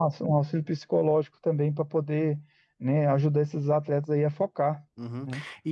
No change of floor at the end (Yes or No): No